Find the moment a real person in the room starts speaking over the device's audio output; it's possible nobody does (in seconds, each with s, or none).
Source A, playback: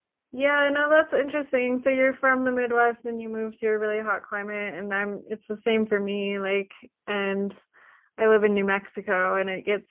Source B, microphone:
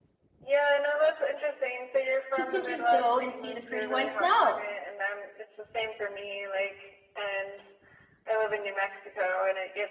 2.4 s